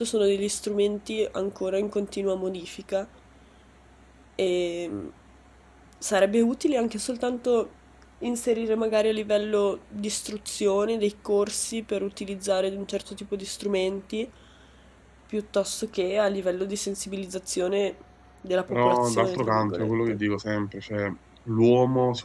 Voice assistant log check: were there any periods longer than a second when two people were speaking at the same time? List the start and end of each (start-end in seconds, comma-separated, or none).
18.7-20.2